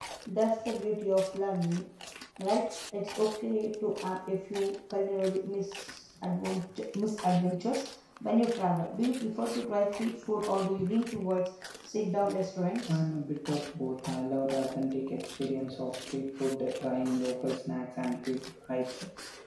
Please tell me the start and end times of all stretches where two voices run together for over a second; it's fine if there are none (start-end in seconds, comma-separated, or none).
none